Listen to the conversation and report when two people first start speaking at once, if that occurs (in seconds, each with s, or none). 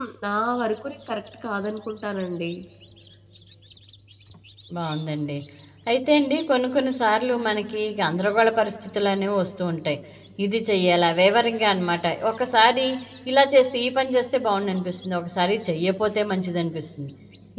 none